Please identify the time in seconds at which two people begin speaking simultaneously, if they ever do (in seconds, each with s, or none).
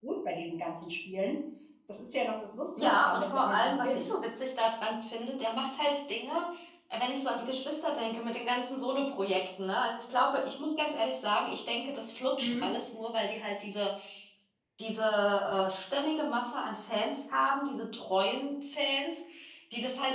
2.8 s